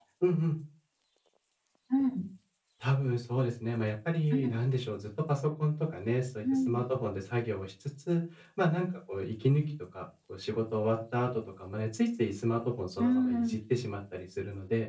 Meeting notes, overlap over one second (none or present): none